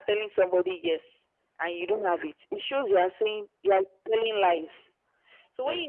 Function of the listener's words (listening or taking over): listening